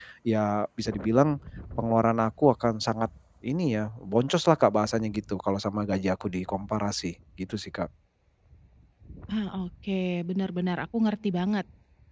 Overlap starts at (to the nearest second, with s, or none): none